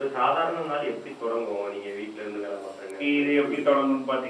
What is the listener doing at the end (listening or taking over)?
taking over